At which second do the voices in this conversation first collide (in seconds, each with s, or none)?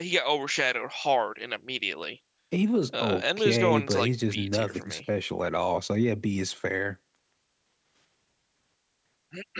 3.0 s